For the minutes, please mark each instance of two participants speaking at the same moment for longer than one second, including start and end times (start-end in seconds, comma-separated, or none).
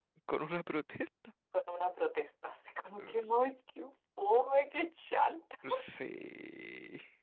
none